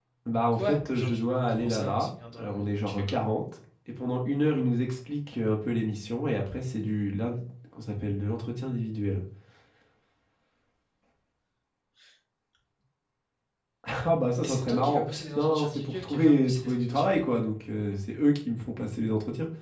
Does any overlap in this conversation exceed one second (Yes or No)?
Yes